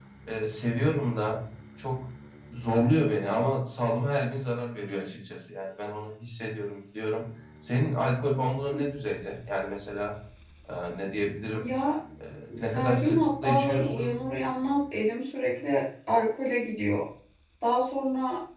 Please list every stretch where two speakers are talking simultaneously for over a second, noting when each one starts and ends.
12.6-14.2

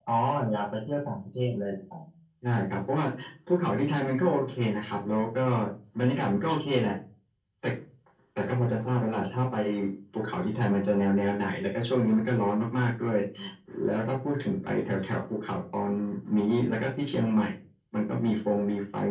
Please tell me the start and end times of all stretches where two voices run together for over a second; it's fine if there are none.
none

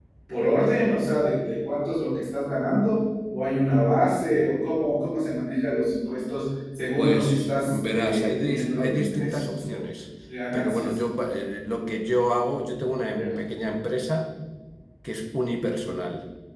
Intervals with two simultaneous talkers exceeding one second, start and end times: 7.0-9.8

